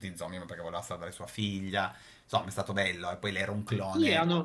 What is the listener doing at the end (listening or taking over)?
taking over